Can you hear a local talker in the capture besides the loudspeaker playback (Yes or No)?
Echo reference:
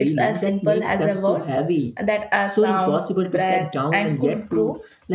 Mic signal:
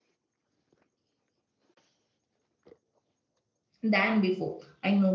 Yes